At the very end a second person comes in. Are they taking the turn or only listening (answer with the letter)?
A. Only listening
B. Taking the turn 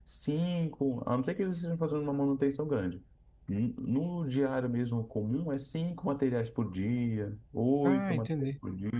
A